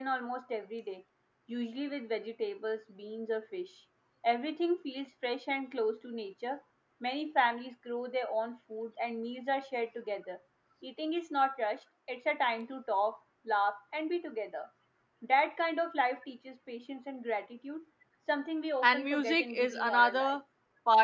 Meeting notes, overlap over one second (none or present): present